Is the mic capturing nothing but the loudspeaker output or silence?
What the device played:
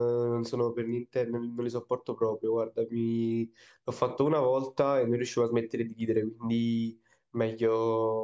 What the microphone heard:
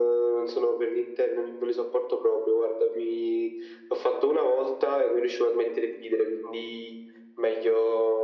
Yes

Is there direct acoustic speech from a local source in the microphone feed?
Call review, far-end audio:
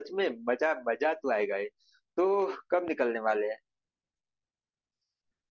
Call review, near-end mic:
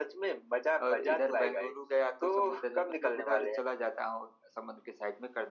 Yes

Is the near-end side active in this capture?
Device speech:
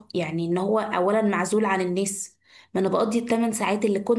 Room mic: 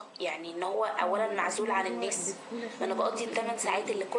Yes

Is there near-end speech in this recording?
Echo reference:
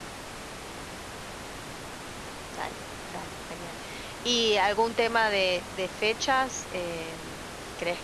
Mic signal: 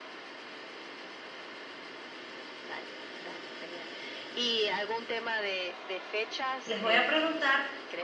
Yes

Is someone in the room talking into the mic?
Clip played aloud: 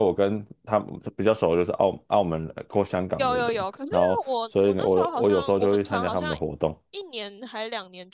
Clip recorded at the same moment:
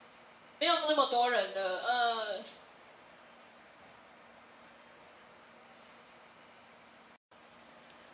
Yes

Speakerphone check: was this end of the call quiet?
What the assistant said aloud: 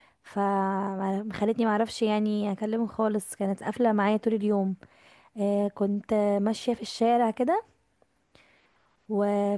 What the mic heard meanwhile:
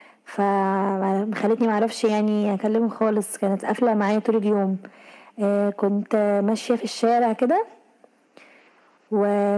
Yes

